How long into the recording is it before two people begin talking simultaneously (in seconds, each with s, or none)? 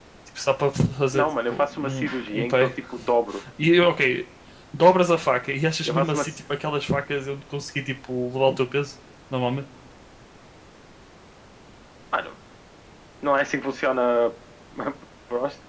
1.1 s